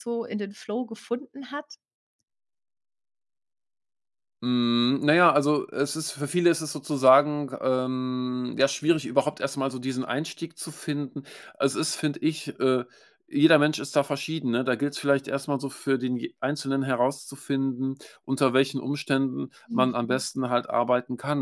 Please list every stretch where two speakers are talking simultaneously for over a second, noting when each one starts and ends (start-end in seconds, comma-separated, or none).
none